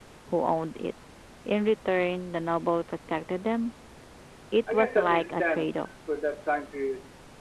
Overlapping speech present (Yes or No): Yes